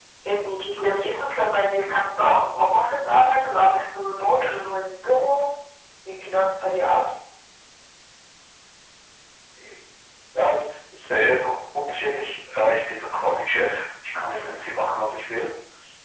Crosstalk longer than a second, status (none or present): none